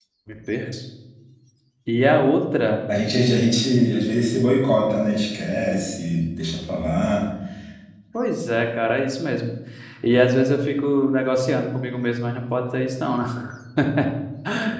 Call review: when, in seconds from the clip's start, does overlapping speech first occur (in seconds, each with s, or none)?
none